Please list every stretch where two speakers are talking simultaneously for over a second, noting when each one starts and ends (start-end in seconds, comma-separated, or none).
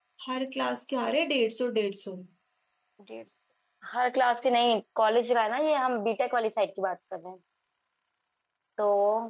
none